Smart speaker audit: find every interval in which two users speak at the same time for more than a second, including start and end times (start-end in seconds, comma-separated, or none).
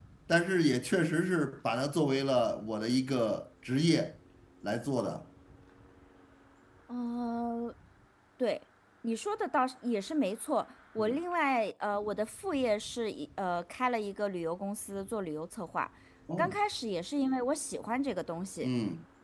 none